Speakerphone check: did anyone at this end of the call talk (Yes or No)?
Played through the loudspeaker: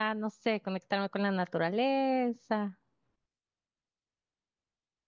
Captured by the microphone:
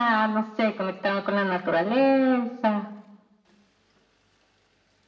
No